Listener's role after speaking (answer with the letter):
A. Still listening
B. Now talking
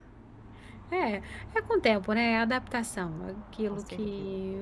A